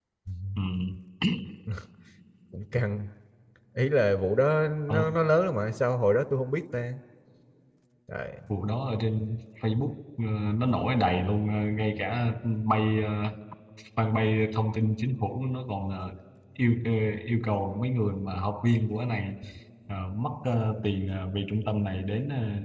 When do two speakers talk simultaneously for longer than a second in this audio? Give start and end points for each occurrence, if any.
none

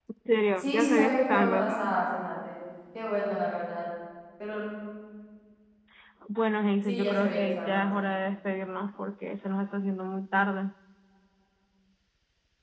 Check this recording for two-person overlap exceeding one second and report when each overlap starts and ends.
0.6-2.0, 6.8-8.1

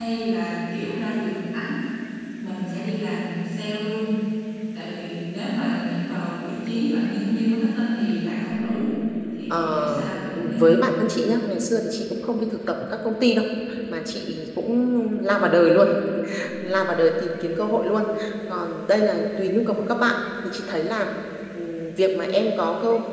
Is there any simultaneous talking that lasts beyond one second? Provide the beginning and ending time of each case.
9.5-10.8

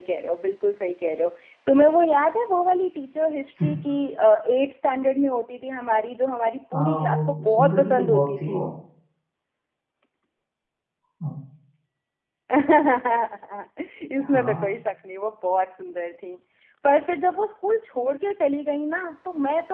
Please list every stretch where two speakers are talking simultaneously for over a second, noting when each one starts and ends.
6.7-8.6

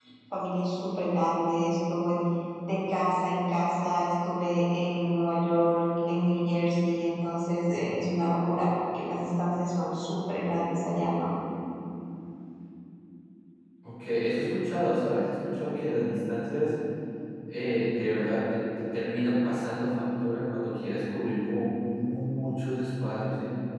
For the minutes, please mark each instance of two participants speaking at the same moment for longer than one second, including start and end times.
none

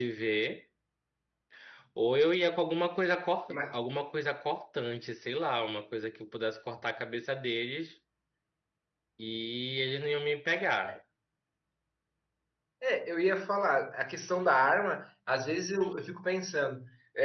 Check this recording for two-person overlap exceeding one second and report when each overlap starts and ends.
none

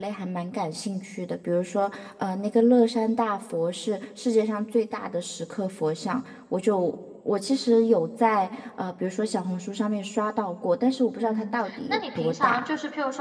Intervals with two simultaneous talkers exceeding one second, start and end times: 11.2-12.6

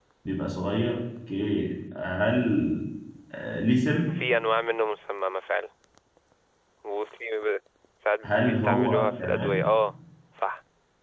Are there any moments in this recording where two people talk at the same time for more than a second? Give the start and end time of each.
8.2-9.6

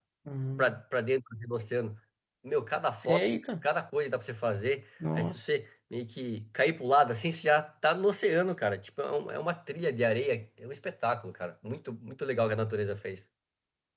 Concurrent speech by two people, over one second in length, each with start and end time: none

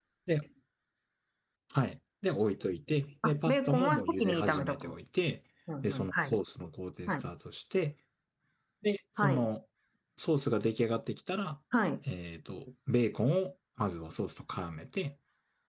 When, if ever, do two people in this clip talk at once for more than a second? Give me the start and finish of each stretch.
3.2-5.0

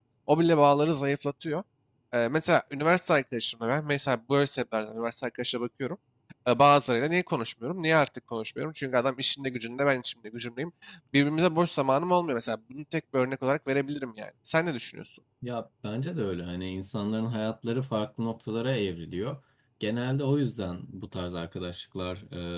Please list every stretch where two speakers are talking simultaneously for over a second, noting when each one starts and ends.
none

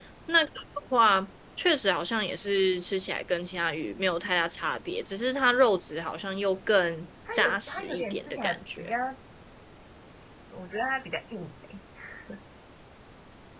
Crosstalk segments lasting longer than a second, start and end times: 7.3-8.9

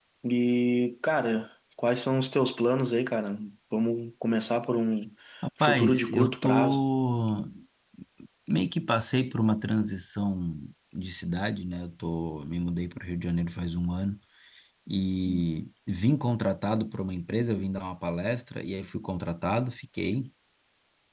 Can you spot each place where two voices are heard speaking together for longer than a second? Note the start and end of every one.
5.6-6.8

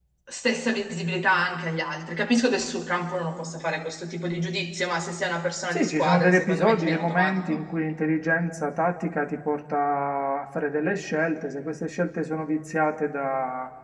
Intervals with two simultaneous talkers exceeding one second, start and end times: 5.7-7.6

